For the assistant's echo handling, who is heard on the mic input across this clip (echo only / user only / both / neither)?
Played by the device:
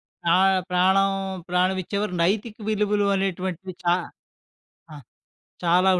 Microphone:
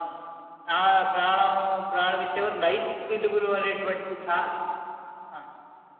echo only